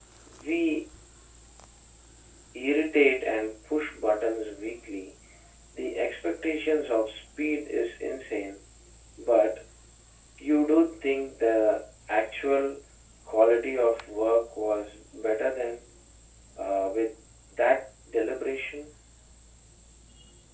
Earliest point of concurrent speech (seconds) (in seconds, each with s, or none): none